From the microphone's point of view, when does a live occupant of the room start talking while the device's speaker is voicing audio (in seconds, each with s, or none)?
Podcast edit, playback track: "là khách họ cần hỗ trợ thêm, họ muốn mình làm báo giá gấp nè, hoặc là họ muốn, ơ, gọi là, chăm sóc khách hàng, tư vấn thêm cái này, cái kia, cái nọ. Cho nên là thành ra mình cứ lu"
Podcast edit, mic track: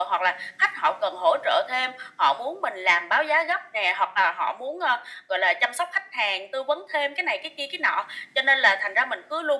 none